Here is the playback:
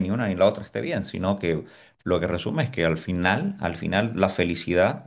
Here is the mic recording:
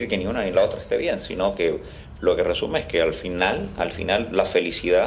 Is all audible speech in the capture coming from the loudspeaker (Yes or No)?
Yes